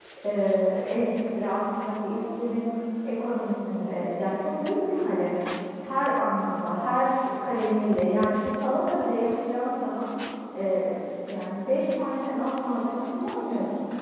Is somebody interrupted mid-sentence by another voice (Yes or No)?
No